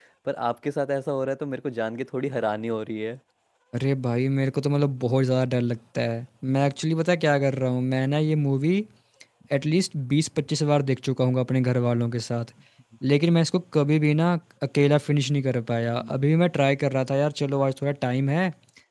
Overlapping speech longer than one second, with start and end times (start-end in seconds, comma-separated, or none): none